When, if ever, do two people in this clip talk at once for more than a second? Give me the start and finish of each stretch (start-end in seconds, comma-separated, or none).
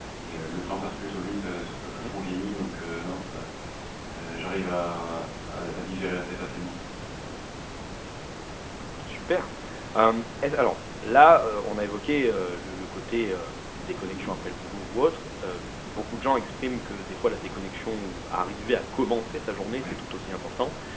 none